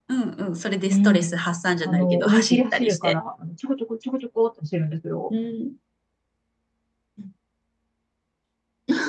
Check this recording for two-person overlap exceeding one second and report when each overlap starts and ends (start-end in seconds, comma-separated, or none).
1.8-3.2